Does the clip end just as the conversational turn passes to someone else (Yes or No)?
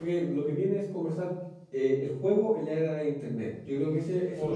Yes